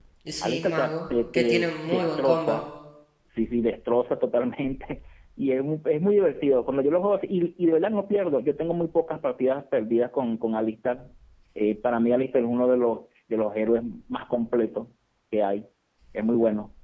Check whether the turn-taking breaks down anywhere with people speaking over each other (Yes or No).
Yes